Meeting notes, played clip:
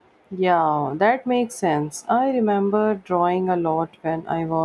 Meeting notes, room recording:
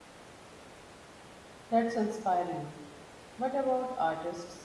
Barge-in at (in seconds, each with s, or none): 1.7 s